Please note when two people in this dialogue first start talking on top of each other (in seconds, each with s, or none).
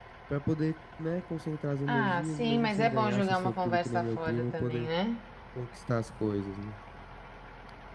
1.9 s